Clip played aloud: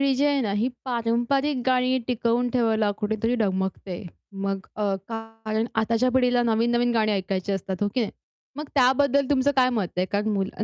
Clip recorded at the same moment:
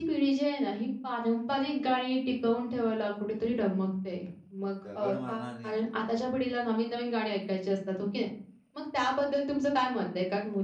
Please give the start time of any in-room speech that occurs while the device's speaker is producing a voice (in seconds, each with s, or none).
4.7 s